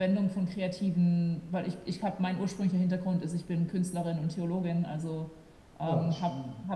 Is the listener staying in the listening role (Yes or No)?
Yes